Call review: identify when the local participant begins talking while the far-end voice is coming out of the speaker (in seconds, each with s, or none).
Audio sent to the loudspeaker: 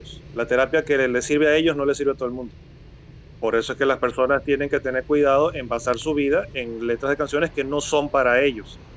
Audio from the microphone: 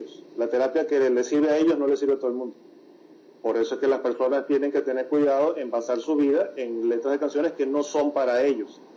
none